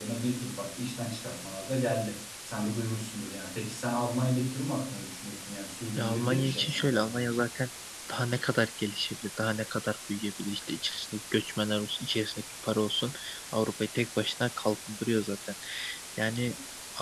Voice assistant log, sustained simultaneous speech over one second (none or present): present